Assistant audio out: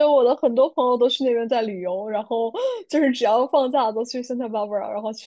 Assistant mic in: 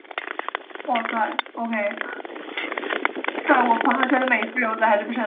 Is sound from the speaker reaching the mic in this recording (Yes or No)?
No